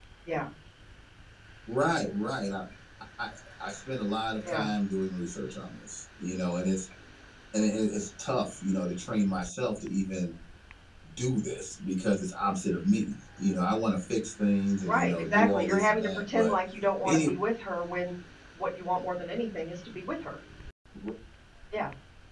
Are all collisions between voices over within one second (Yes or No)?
No